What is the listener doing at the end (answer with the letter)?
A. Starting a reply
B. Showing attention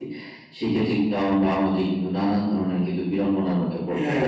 A